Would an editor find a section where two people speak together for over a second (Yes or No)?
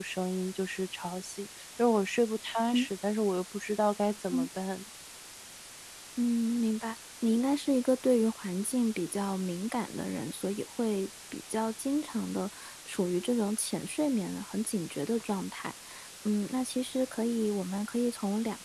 No